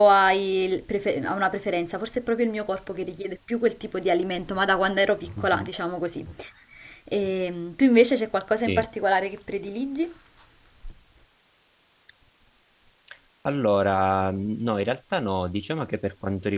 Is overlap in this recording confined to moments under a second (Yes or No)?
Yes